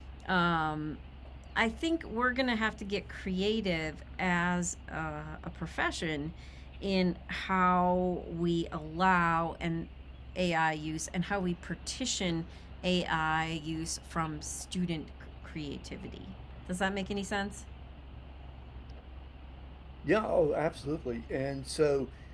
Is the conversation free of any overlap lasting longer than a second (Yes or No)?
Yes